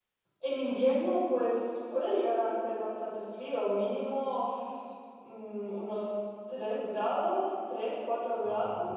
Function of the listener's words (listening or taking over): listening